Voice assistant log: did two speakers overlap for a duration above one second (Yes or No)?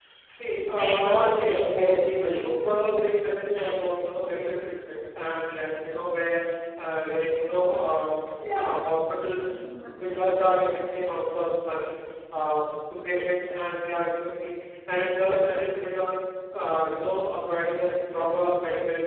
Yes